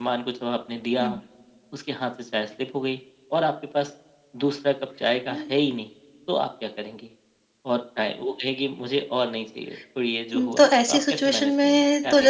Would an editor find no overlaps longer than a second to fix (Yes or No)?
No